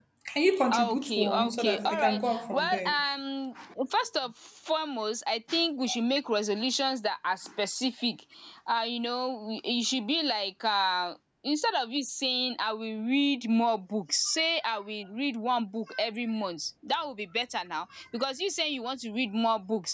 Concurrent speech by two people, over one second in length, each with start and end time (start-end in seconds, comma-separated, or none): 0.7-2.9